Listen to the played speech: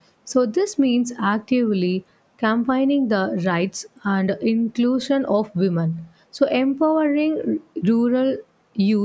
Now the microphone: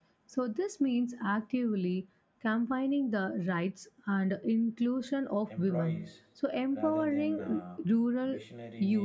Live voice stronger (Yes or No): No